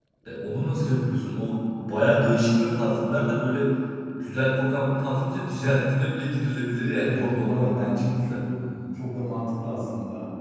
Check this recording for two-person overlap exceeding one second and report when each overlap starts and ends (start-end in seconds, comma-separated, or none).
7.0-8.4